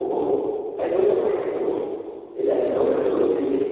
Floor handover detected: No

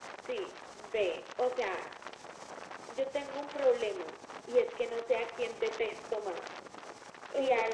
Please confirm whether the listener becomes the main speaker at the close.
No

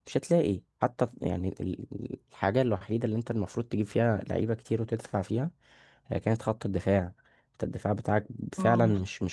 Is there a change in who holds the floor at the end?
Yes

